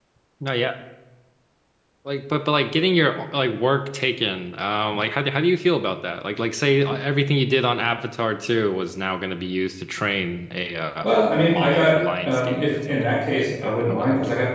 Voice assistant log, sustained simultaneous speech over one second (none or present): present